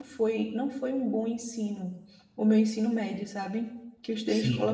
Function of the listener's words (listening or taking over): listening